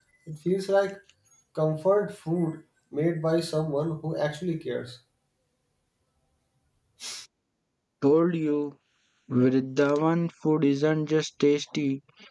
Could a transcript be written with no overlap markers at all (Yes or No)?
Yes